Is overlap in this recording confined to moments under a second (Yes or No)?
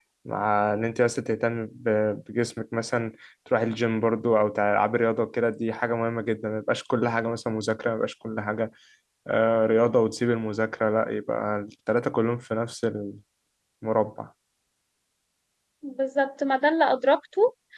Yes